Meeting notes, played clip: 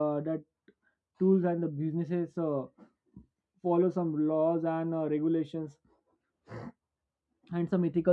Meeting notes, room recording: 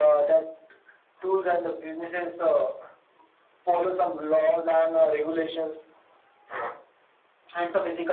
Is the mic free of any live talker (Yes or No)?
Yes